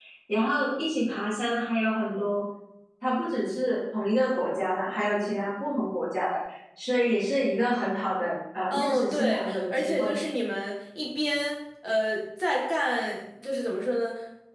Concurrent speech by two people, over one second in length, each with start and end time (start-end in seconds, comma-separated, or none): 8.7-10.2